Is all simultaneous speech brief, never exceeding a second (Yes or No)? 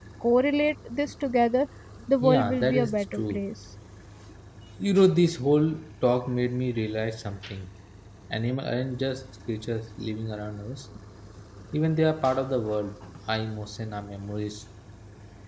No